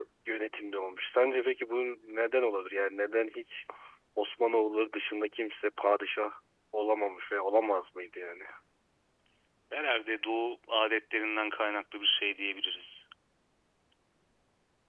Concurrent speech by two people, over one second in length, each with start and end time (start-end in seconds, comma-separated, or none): none